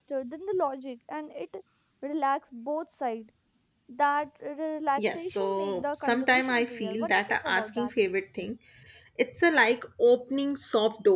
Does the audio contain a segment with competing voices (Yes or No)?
Yes